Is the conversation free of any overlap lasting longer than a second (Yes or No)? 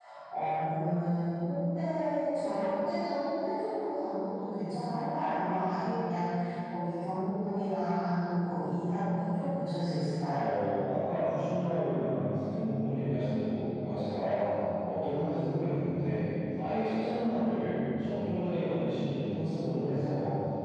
Yes